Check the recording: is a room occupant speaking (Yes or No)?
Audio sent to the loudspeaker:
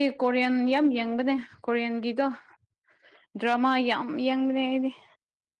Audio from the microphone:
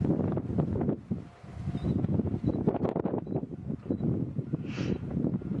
No